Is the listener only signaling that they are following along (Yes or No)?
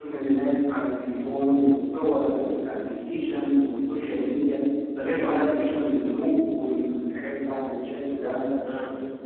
No